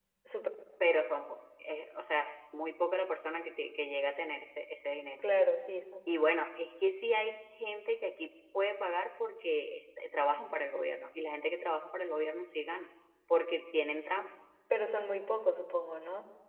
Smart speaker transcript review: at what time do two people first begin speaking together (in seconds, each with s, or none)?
none